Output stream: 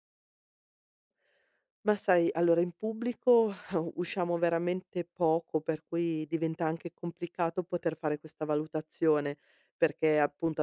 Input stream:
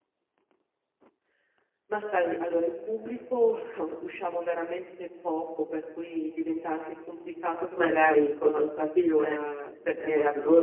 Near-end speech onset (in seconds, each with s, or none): 7.7 s